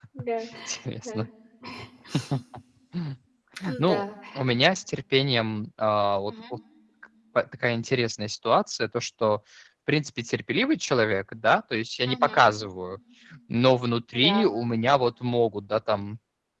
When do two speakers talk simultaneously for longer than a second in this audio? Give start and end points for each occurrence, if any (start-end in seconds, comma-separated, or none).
none